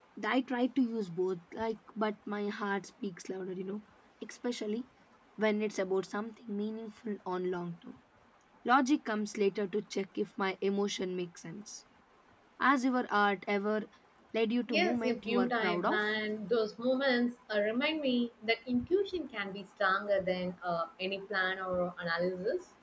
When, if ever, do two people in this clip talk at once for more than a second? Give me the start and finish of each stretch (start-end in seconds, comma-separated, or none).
14.7-16.0